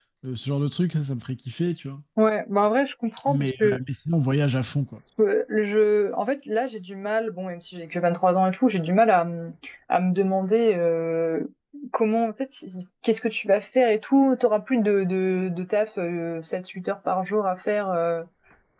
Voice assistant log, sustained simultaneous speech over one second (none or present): none